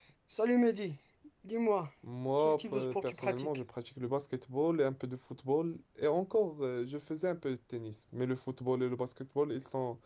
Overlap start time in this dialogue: 2 s

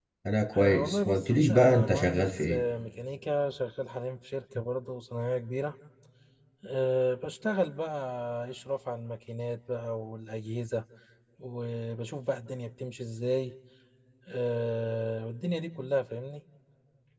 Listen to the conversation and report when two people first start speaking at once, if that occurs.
1 s

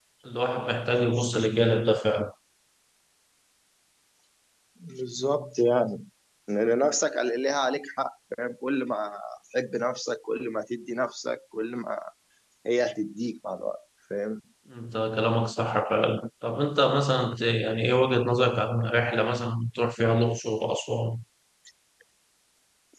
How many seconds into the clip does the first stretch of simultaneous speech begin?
none

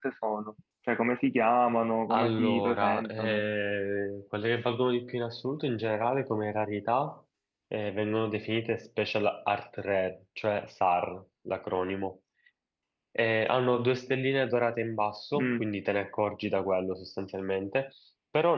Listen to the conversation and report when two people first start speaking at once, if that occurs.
2 s

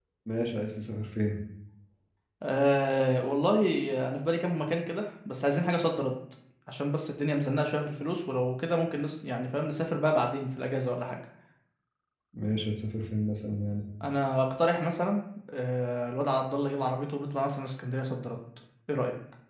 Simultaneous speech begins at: none

